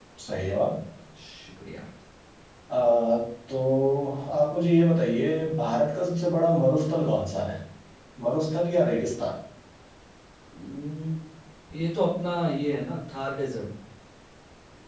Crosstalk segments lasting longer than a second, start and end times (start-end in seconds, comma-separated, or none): none